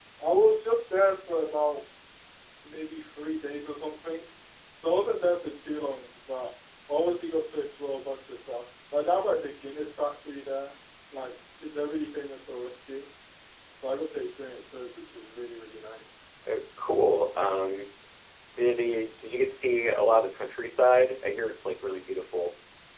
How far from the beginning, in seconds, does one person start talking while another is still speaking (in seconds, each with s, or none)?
none